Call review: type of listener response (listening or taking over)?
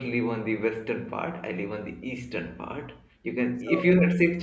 listening